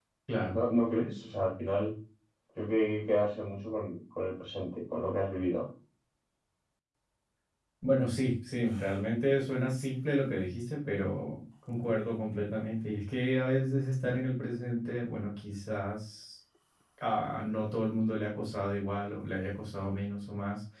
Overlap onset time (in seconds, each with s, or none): none